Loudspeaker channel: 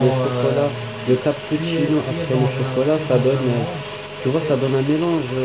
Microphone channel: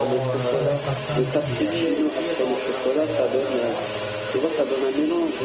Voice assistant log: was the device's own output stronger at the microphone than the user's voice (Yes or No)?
Yes